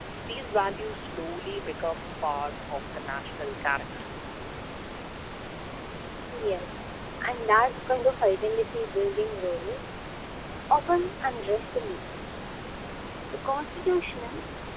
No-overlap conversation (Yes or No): Yes